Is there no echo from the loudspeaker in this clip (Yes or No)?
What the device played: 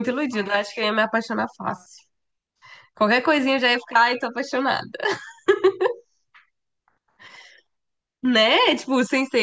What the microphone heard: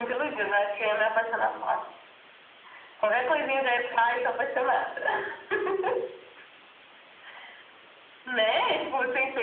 No